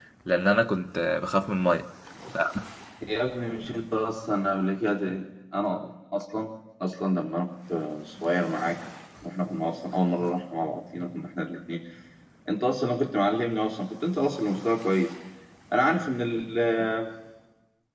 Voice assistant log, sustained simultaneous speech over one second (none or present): none